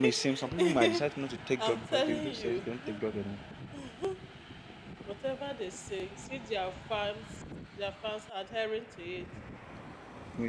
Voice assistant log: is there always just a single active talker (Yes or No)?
No